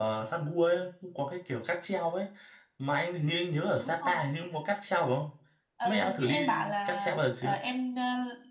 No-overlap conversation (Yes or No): No